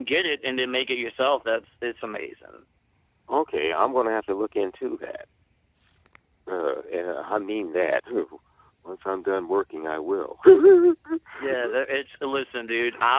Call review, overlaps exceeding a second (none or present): none